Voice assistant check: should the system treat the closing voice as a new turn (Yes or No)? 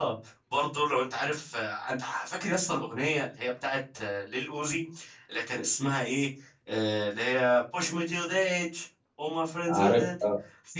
No